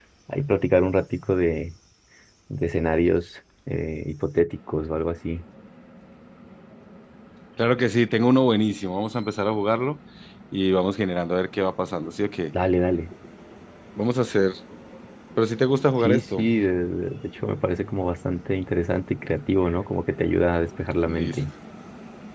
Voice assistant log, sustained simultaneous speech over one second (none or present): none